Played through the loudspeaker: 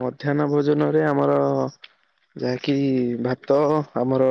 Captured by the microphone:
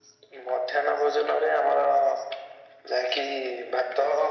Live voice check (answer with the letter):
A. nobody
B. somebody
A